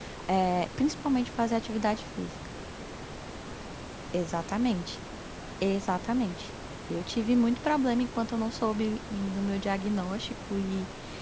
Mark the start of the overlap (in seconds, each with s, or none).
none